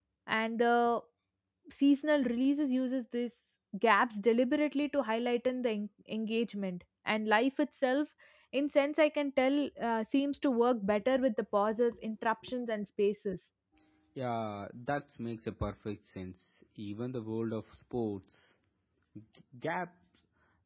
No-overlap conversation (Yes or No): Yes